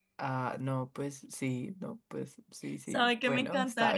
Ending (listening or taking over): taking over